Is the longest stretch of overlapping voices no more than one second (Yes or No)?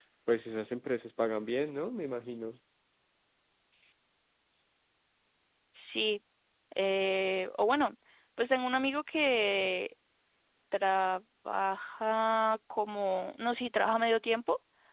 Yes